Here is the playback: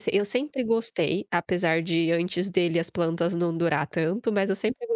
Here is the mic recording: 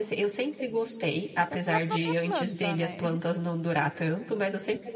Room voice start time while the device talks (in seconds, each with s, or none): 1.4 s